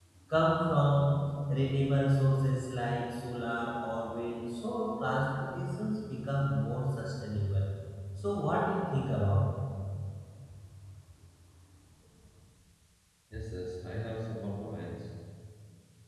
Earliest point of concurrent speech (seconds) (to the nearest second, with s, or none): none